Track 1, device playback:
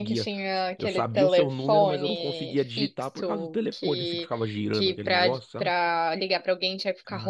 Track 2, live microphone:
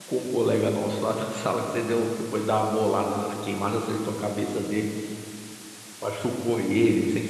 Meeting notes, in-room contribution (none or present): present